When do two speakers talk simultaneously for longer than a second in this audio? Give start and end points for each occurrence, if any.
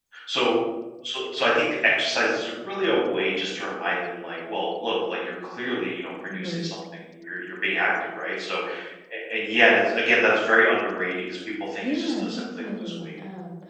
11.8-13.0

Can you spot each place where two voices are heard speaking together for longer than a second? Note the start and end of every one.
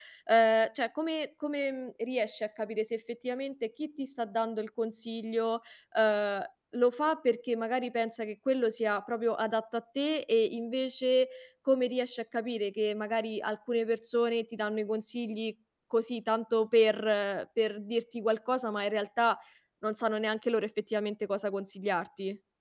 none

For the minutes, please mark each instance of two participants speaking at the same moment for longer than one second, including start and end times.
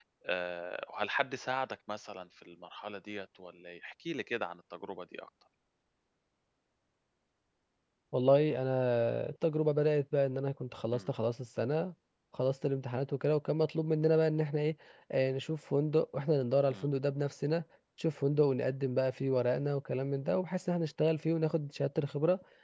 none

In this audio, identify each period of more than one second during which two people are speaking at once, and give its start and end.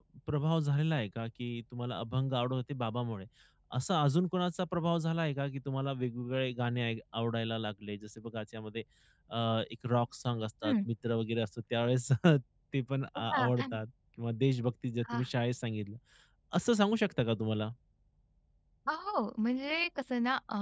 none

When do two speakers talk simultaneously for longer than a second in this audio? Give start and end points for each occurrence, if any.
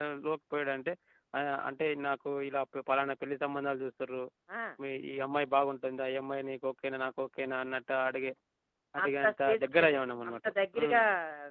9.0-11.0

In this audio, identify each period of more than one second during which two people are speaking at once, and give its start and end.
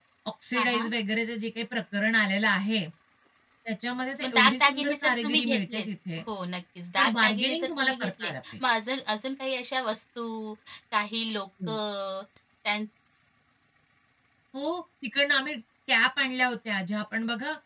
4.2-5.9, 7.0-8.5

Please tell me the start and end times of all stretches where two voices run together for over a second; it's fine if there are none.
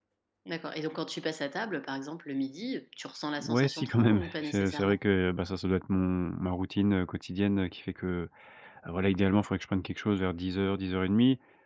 3.4-5.0

